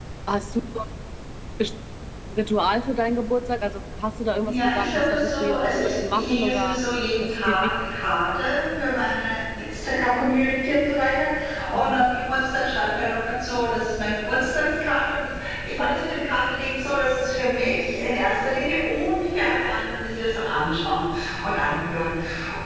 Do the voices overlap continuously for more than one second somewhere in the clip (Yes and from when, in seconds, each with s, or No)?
Yes, from 4.5 s